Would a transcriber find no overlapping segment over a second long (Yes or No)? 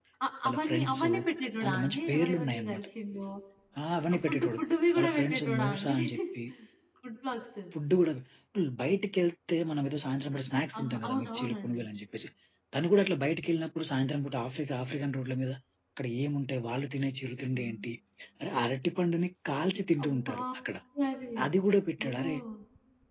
No